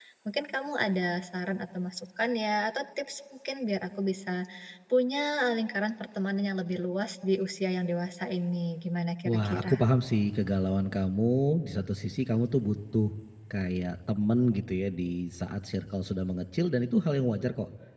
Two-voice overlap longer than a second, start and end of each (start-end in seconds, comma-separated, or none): none